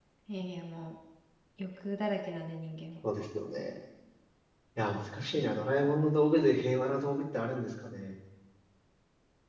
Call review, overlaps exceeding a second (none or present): none